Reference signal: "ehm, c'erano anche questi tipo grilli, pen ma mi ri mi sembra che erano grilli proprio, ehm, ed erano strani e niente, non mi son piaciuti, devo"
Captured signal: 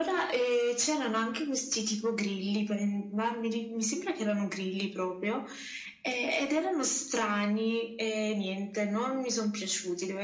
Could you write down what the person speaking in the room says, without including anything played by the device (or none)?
none